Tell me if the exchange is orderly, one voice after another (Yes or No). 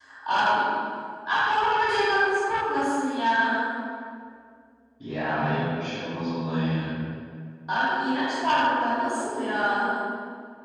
Yes